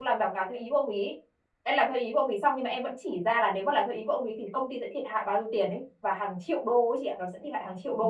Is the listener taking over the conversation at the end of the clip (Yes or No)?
Yes